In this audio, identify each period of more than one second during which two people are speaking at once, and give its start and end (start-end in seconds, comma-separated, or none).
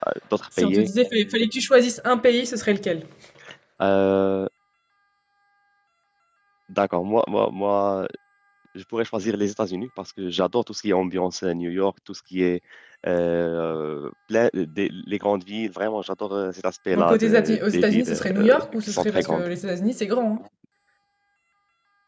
16.9-19.5